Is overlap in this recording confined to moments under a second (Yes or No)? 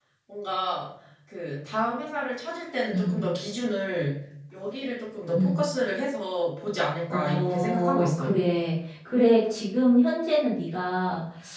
No